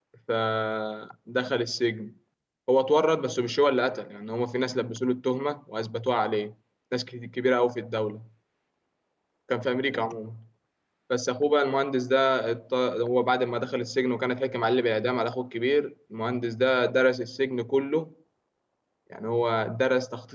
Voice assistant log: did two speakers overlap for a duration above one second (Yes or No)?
No